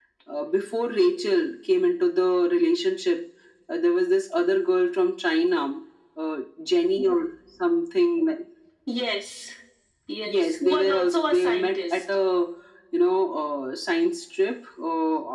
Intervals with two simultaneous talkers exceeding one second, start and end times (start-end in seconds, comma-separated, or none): 10.2-12.0